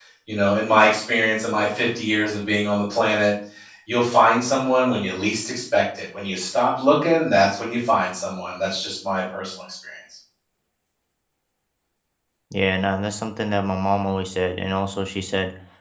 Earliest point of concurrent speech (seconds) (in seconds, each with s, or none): none